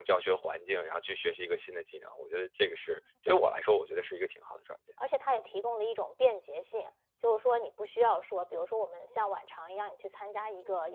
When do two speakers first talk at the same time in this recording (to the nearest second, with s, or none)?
none